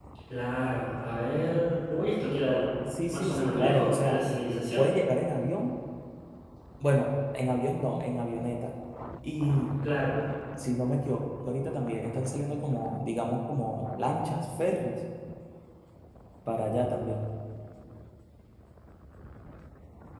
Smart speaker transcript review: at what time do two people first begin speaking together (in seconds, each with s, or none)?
3.1 s